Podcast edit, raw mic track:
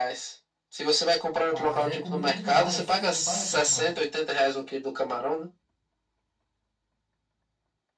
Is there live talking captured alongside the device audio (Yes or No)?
Yes